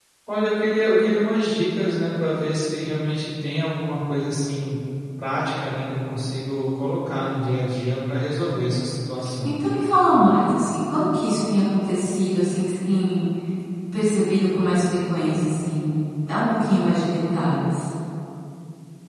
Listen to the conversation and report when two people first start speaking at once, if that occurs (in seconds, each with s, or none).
none